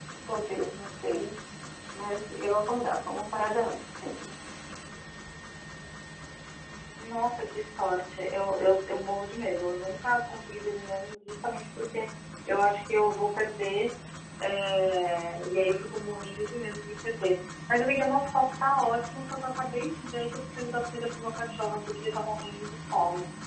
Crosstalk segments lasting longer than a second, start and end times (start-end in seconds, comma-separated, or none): none